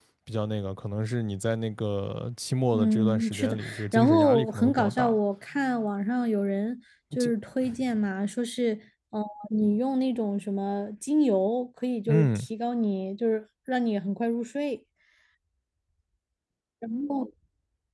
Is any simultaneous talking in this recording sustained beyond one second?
Yes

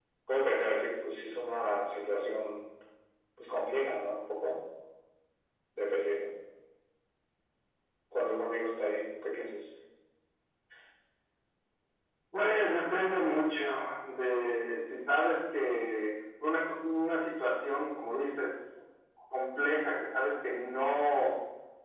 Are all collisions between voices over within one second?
Yes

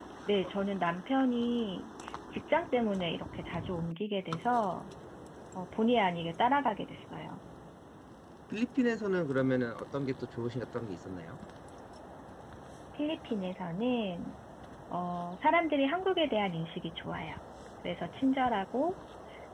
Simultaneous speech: No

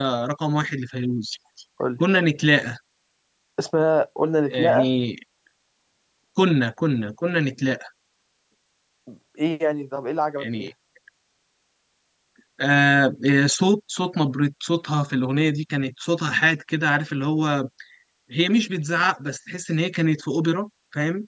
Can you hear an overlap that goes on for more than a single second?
No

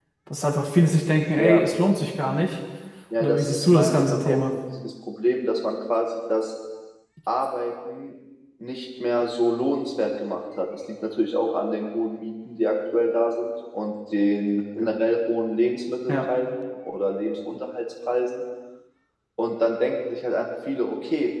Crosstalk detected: Yes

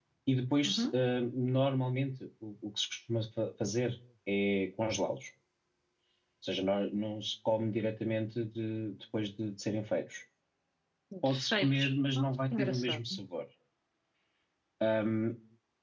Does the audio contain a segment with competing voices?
Yes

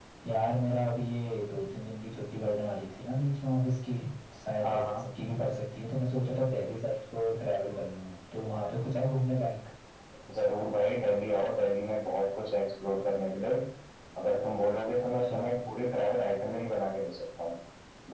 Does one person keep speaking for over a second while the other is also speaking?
No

